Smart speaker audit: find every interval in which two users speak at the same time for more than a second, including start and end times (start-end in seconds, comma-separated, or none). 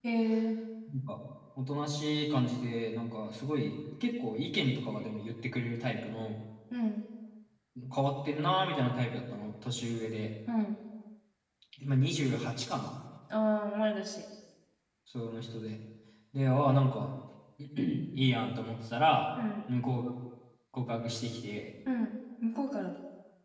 none